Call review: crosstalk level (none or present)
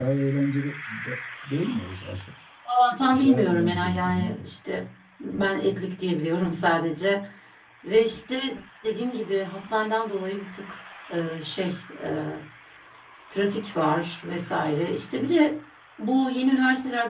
present